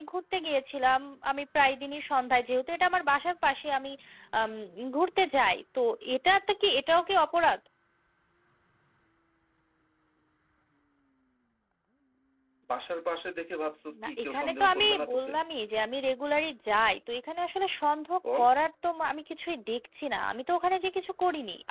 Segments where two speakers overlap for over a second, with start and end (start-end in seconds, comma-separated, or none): 14.0-15.3